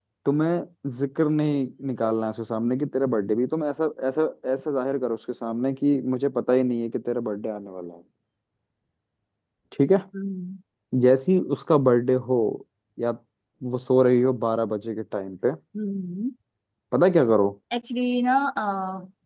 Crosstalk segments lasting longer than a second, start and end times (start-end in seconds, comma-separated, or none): none